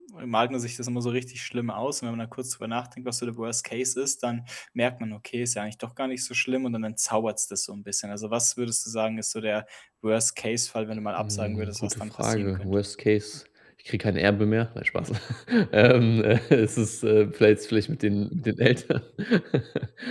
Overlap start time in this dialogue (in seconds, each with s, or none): 11.2 s